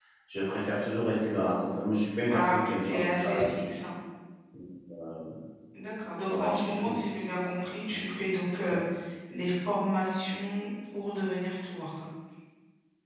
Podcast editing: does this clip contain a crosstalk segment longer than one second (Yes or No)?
Yes